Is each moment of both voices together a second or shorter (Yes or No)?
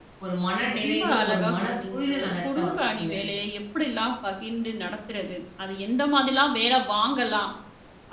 No